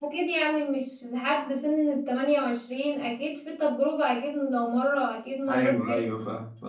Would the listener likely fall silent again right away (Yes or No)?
No